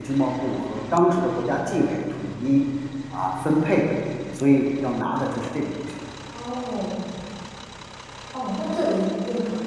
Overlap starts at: none

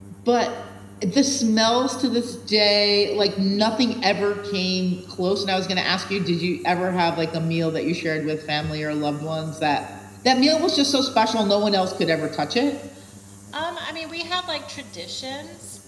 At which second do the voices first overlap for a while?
none

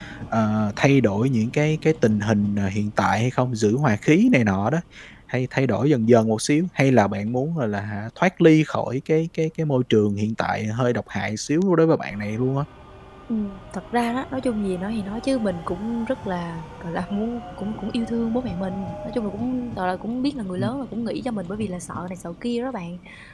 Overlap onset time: none

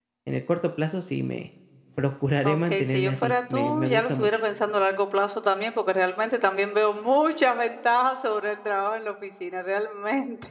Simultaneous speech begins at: 2.5 s

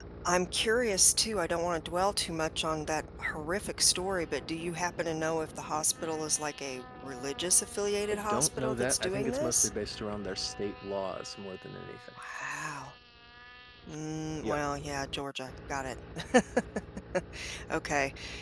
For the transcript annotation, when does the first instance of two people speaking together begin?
8.1 s

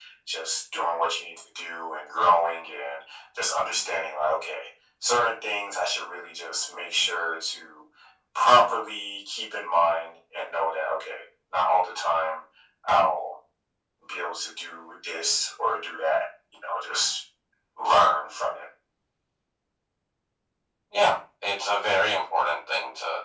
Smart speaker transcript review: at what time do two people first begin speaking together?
none

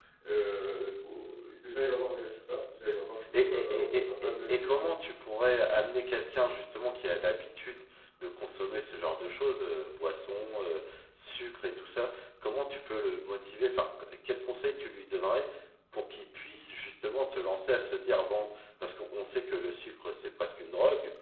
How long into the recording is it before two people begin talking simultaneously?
3.3 s

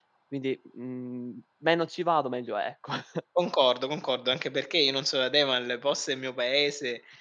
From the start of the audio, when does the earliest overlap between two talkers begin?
none

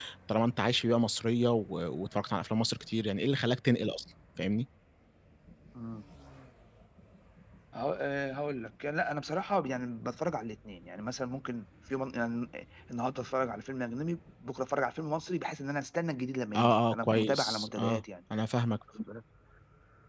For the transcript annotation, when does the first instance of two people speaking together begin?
16.5 s

